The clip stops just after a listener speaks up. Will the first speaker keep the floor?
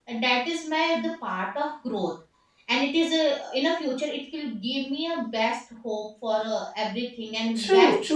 No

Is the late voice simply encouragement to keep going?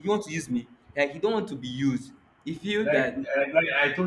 No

